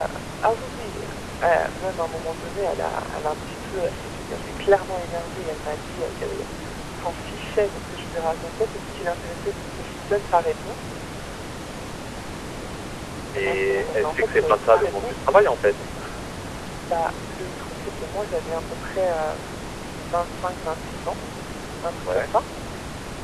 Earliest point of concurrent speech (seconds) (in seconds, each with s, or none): 13.3 s